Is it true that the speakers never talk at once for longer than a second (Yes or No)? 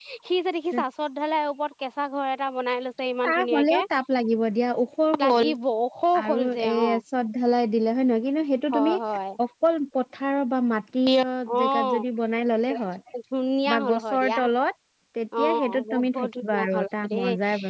No